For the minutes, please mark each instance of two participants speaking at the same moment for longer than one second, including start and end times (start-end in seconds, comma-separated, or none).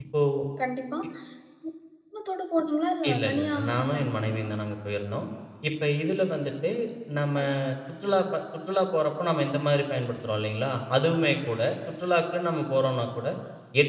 3.1-4.5